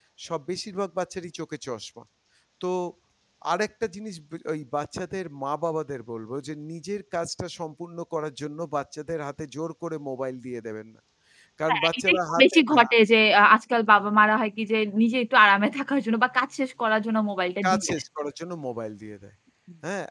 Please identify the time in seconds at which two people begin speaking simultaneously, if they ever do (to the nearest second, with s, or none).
12 s